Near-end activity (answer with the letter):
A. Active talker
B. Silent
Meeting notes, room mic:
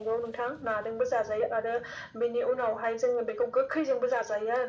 B